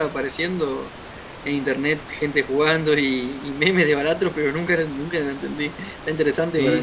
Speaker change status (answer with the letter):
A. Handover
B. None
A